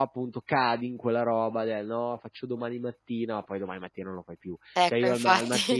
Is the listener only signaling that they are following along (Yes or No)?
Yes